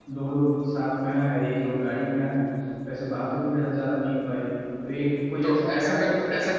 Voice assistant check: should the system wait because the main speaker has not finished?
No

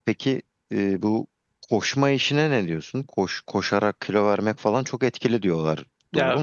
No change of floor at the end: No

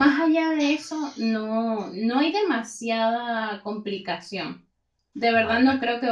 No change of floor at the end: Yes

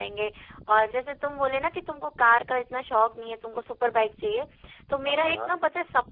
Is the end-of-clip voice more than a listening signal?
No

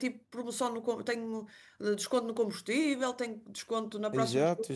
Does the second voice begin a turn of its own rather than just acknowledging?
Yes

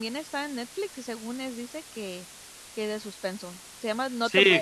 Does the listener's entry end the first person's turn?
Yes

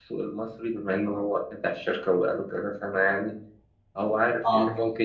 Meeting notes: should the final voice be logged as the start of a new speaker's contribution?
No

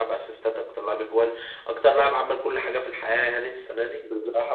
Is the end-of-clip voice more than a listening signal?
No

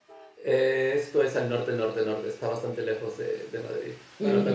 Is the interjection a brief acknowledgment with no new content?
No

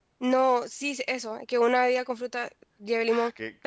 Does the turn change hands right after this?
Yes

